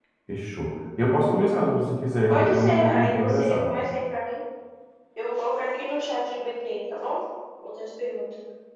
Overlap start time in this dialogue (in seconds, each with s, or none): 2.3 s